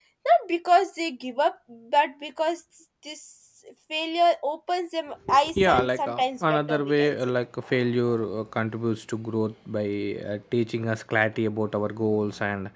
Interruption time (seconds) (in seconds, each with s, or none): 5.5 s